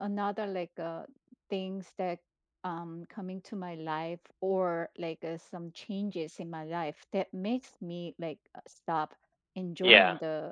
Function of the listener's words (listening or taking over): listening